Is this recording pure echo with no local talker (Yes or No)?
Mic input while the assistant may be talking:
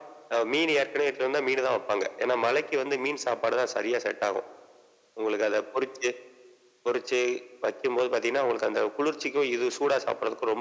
Yes